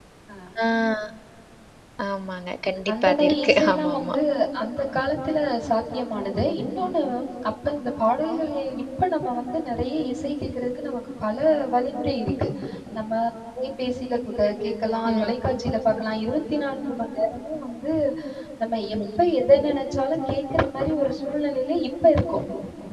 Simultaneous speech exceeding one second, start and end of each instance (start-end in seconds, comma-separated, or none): 2.9-4.2